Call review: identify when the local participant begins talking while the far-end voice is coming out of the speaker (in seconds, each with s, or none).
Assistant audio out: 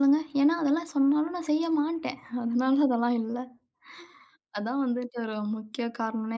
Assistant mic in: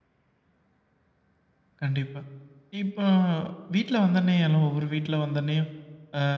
1.8 s